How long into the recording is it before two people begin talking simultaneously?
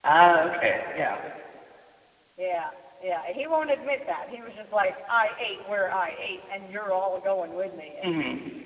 none

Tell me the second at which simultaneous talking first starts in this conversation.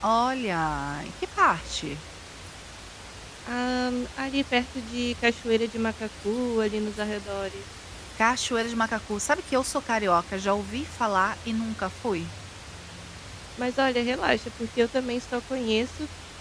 none

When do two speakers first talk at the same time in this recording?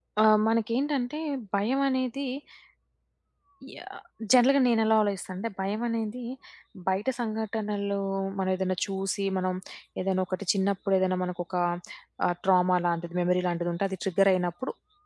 none

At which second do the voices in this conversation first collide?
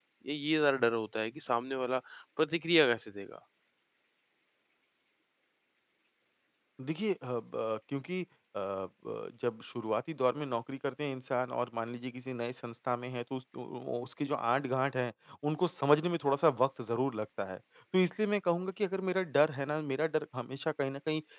none

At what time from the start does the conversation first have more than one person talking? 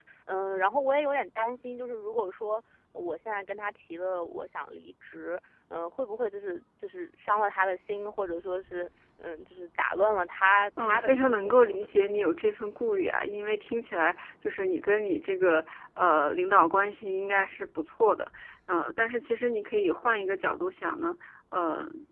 10.8 s

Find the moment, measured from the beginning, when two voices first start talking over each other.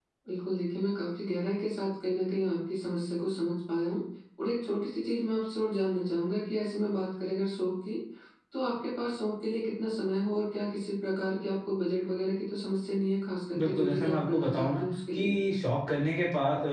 13.6 s

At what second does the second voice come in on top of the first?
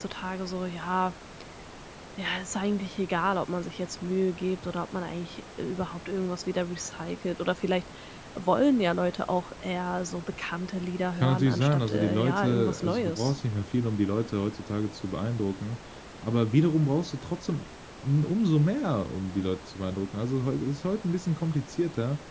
11.2 s

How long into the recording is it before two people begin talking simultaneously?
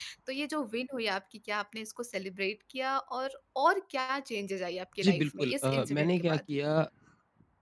5.0 s

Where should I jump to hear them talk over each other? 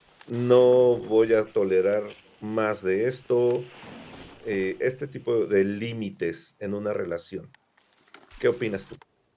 none

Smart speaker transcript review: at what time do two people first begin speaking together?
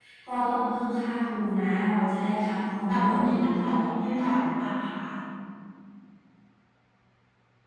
2.9 s

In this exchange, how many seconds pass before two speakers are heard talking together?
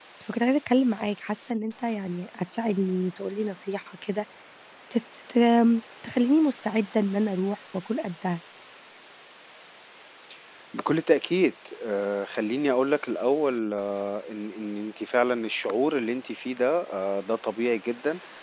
none

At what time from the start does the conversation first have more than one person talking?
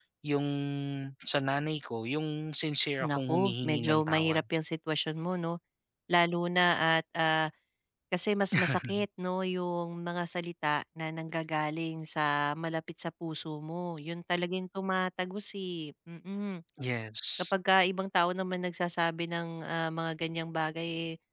3.0 s

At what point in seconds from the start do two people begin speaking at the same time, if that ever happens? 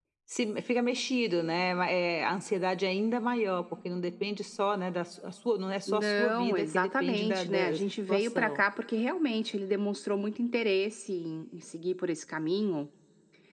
5.9 s

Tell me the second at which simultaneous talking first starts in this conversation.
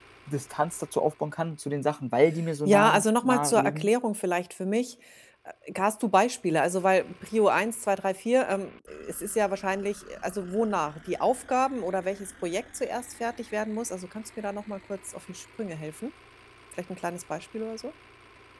2.6 s

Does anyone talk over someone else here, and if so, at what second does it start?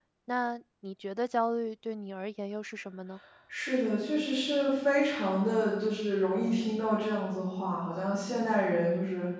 none

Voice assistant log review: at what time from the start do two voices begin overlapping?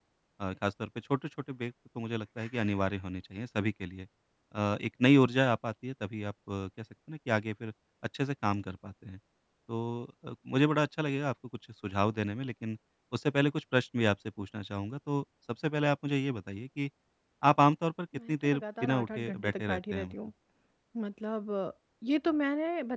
18.3 s

